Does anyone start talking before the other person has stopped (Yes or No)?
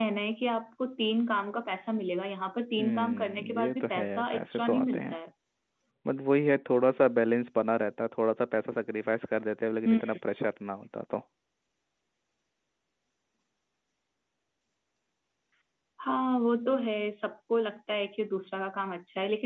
Yes